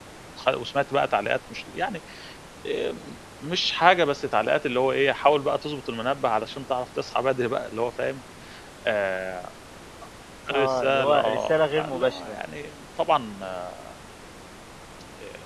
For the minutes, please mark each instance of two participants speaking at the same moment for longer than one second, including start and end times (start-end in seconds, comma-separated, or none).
10.5-12.4